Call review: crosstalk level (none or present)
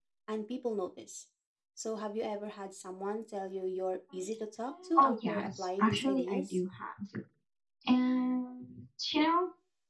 present